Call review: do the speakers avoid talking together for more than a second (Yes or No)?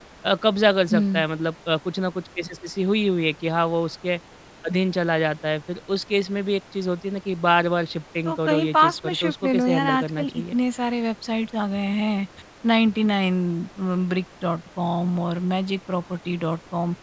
No